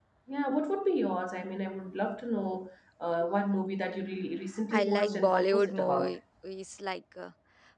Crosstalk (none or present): present